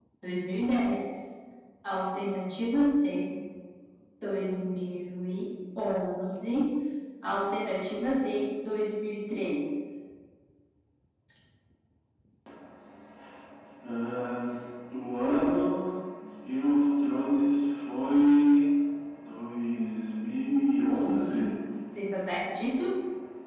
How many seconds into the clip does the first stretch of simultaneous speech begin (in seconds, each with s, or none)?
none